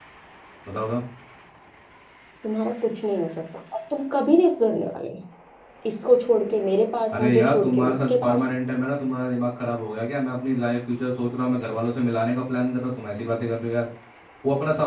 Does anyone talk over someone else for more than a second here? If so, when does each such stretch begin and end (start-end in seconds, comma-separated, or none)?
7.1-8.4